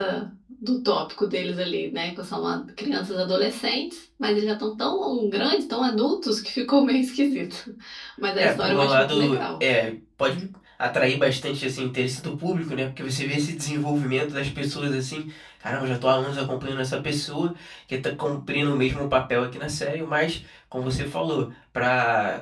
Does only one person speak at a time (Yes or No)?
No